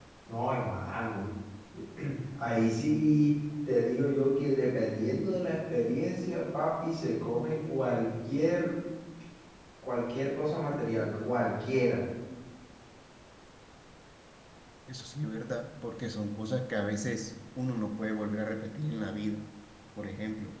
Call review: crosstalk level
none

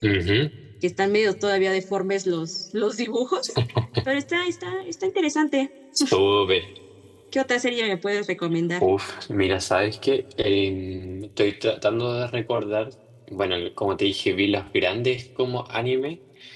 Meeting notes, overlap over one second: none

